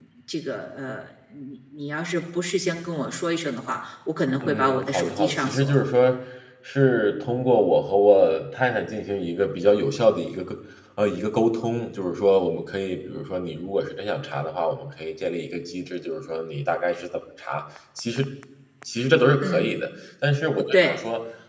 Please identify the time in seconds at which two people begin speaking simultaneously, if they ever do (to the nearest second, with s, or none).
4 s